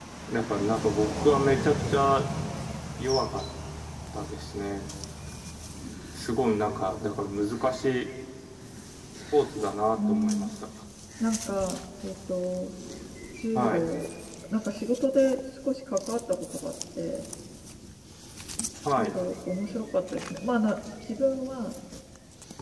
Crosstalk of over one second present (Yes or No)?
No